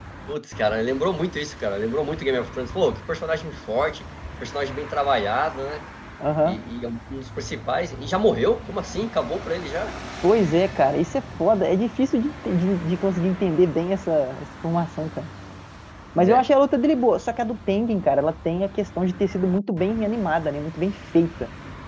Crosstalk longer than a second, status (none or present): none